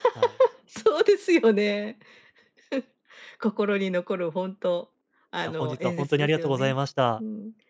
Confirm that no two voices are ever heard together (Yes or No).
No